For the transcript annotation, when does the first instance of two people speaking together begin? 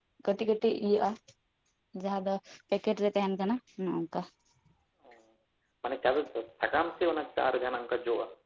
none

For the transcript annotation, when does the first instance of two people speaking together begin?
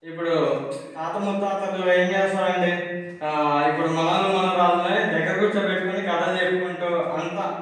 none

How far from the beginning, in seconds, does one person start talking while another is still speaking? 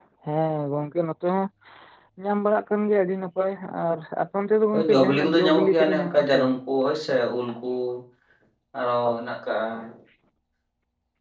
4.7 s

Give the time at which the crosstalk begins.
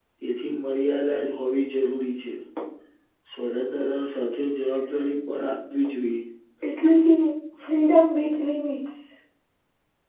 none

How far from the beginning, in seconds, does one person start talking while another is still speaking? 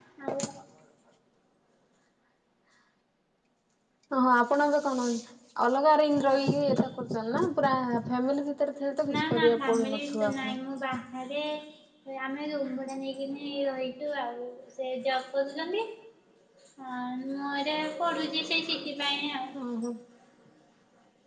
9.1 s

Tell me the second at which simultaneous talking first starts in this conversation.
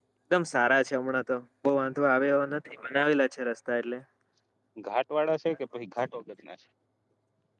none

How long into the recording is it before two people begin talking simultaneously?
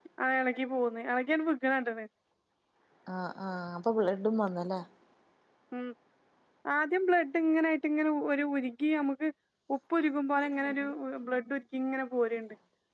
none

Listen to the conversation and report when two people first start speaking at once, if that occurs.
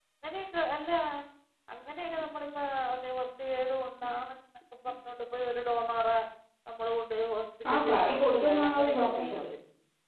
7.6 s

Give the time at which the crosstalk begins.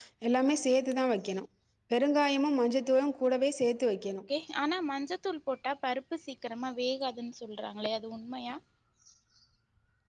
none

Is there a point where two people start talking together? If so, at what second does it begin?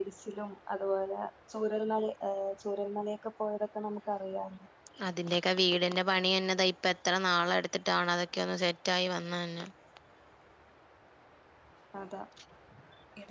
none

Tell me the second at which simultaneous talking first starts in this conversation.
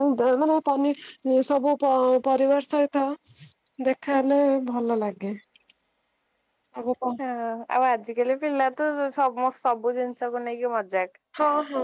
none

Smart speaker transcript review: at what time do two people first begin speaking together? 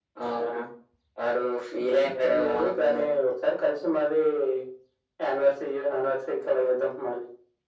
1.7 s

